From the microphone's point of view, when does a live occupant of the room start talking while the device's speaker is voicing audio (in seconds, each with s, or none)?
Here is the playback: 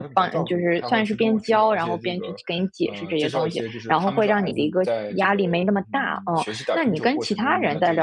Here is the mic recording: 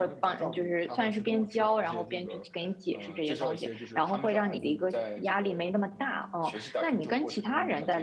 none